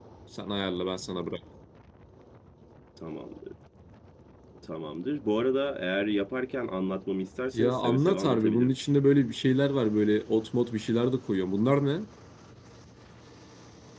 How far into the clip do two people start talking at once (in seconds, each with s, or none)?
7.5 s